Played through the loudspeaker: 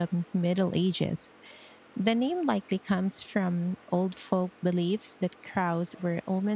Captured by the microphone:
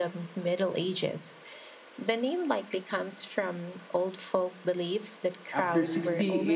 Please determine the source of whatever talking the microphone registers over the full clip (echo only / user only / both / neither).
both